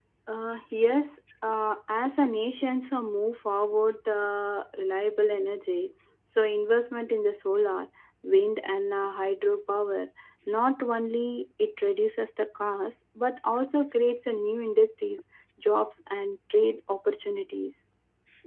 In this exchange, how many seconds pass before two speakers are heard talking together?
none

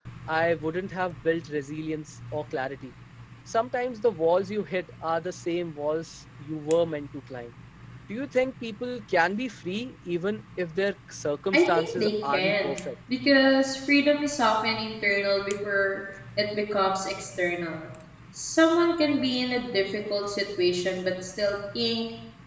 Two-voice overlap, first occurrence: 11.5 s

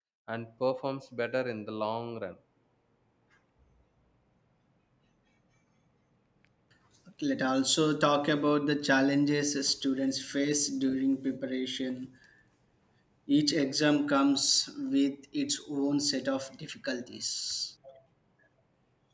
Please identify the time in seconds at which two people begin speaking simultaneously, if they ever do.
none

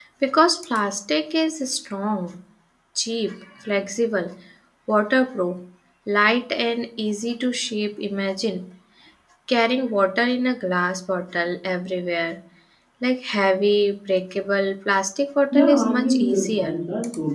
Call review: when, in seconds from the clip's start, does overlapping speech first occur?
15.5 s

